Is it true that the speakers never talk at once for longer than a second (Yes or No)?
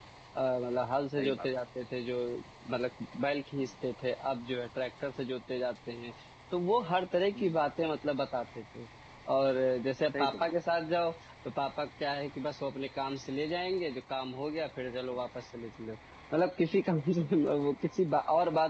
Yes